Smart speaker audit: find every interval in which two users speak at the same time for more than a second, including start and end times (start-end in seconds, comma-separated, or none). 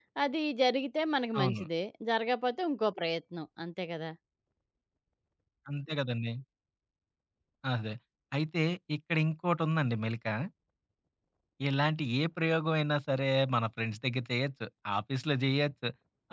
none